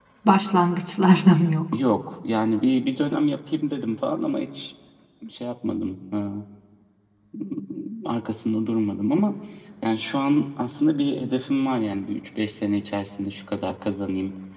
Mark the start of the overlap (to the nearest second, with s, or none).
none